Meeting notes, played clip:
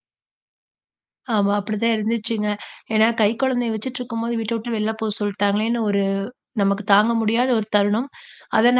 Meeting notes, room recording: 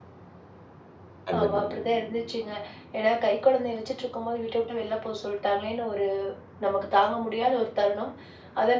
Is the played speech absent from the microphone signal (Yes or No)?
No